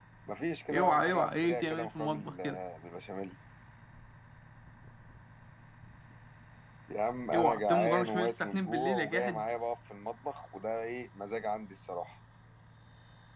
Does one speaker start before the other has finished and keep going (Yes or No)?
Yes